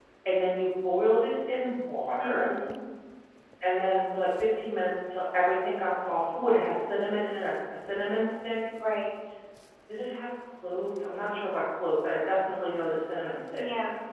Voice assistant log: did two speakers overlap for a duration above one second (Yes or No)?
No